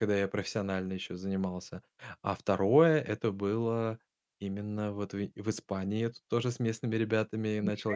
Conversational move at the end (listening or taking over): listening